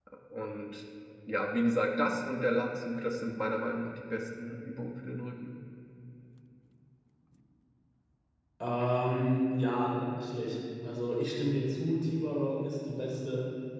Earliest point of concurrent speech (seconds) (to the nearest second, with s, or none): none